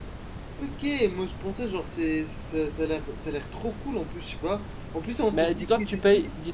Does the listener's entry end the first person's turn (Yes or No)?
Yes